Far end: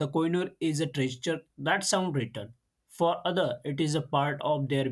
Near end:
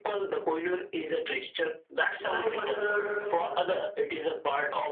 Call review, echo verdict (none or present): present